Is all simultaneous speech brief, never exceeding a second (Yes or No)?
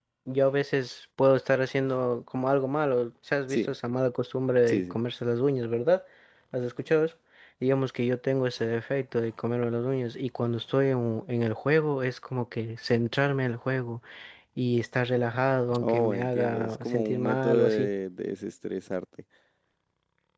No